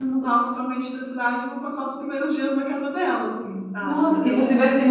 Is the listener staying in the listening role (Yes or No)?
No